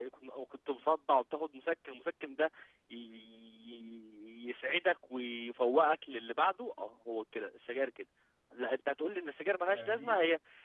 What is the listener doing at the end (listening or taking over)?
listening